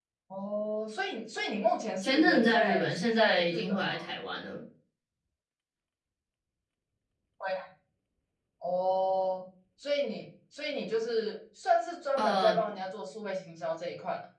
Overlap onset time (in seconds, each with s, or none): 2.0 s